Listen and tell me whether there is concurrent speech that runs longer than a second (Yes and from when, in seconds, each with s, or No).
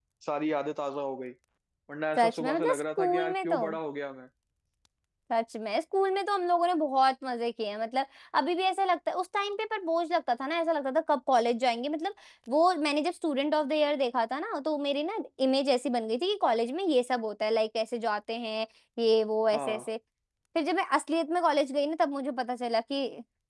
Yes, from 2.2 s